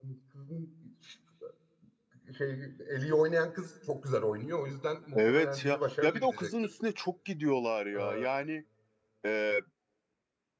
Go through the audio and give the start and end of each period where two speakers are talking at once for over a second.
5.2-6.5

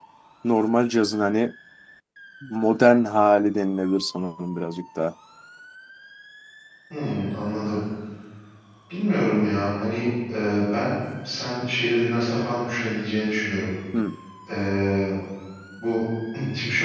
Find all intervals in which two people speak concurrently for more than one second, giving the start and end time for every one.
none

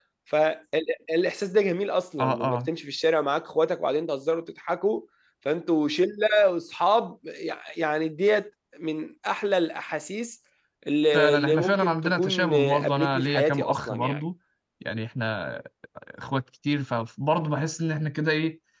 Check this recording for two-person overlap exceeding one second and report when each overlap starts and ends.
11.1-14.2

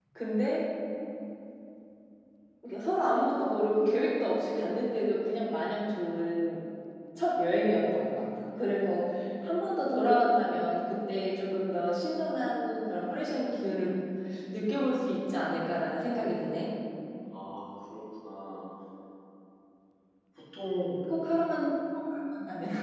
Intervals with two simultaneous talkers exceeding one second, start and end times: none

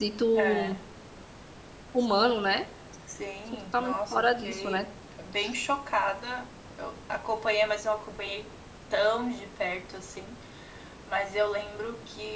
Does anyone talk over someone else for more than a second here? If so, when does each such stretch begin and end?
3.5-4.8

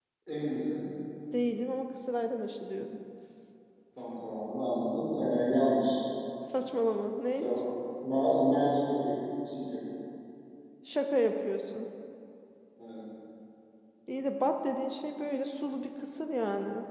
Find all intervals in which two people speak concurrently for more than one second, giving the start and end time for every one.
none

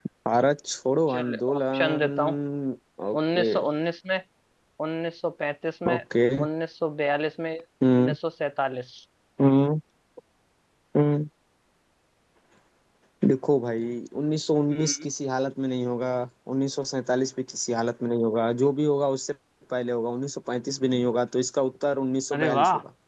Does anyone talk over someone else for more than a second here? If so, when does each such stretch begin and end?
1.1-2.3

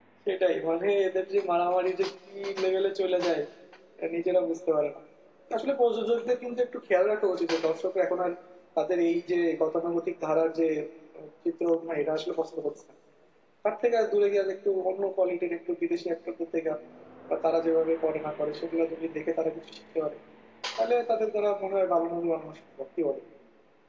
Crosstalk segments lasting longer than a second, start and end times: none

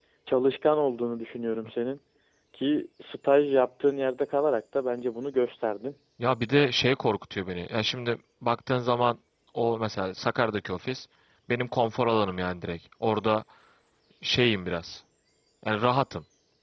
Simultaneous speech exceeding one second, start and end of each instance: none

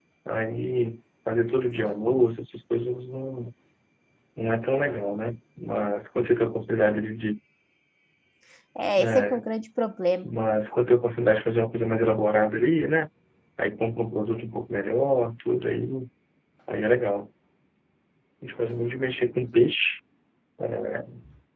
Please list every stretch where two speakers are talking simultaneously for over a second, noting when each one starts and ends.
none

